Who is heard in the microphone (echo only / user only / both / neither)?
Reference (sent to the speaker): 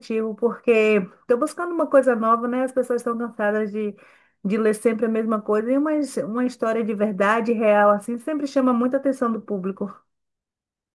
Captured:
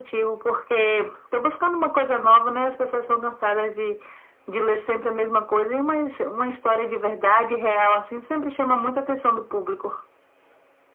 echo only